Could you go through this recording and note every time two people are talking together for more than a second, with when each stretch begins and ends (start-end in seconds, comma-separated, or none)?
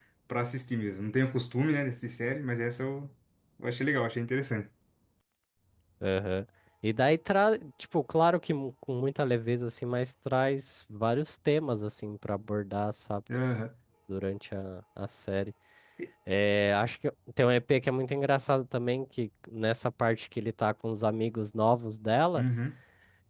none